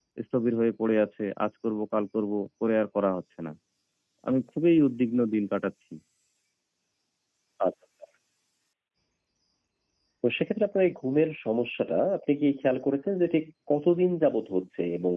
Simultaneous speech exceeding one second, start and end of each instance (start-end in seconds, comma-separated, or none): none